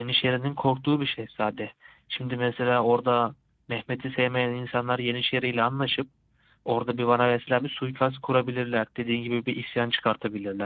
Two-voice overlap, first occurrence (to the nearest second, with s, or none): none